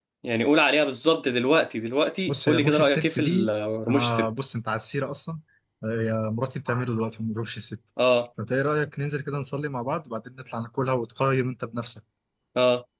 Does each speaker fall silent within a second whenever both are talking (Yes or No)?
No